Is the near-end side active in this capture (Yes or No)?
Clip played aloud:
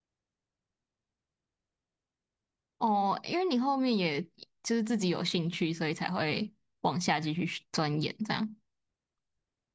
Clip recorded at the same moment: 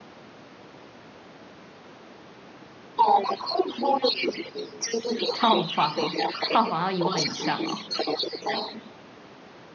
Yes